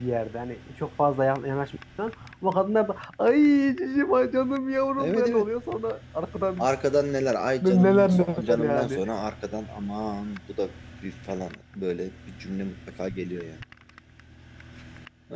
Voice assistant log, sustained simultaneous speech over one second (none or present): present